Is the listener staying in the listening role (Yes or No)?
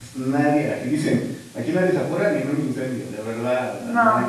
Yes